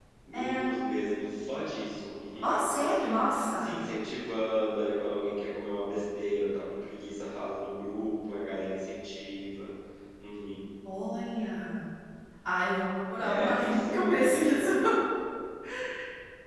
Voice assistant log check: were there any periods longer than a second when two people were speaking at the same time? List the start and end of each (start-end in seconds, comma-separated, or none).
2.4-3.7, 13.2-14.7